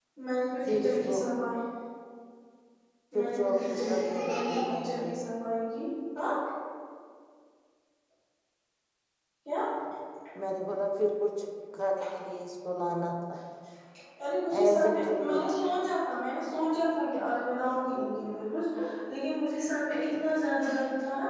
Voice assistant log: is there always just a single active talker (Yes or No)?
No